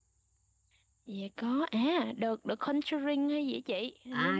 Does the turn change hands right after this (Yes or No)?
Yes